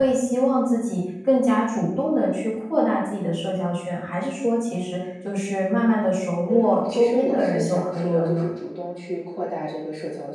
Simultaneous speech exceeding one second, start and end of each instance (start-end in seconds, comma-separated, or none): 6.5-8.4